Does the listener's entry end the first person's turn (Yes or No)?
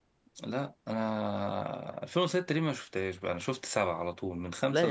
Yes